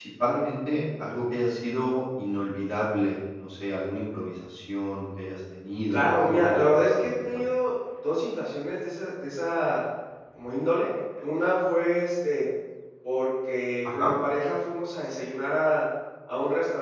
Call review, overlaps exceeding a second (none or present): present